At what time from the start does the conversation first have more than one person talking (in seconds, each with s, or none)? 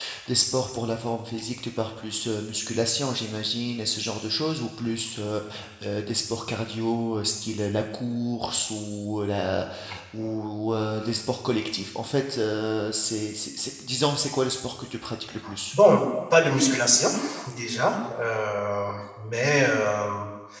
none